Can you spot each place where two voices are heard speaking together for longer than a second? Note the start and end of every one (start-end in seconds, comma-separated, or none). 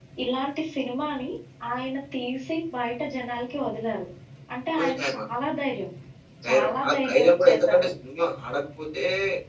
6.5-7.9